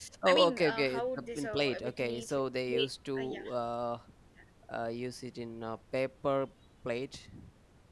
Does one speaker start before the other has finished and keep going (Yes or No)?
Yes